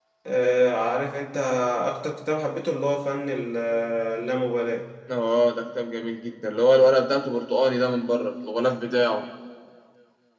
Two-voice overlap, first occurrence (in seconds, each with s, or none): none